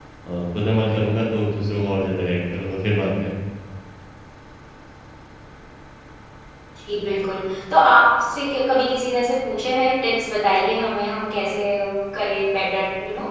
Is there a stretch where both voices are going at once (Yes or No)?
No